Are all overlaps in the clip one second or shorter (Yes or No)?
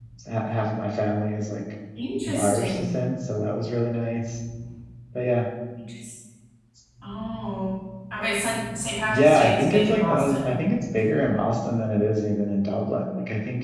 No